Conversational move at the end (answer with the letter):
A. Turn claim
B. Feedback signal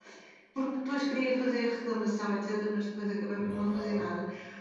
B